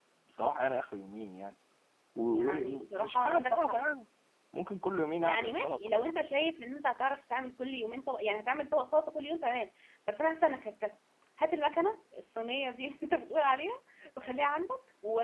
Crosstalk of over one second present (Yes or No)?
Yes